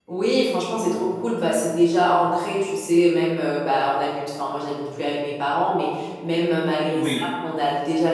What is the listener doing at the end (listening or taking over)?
listening